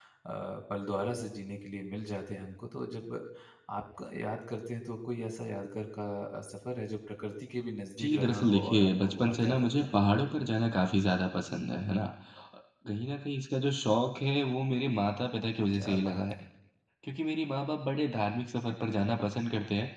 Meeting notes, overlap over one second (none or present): present